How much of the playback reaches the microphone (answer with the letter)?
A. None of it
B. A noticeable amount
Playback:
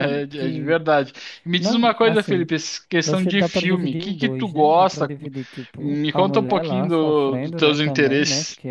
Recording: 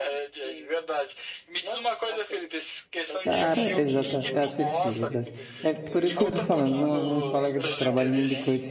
B